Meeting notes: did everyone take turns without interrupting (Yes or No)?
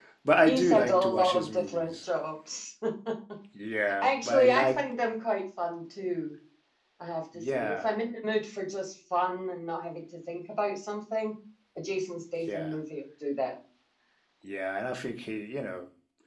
No